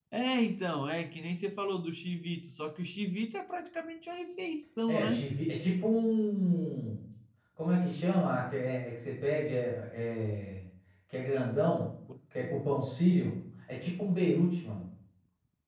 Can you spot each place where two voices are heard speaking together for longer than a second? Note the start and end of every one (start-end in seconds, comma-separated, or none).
none